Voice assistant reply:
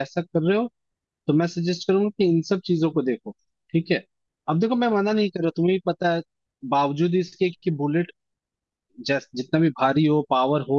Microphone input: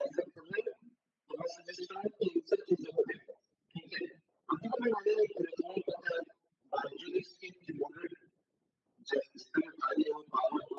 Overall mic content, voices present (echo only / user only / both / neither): echo only